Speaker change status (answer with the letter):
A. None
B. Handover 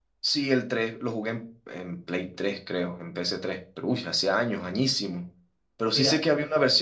A